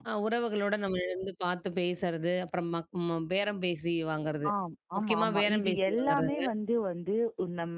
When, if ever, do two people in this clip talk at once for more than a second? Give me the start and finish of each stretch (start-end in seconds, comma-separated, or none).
5.0-6.4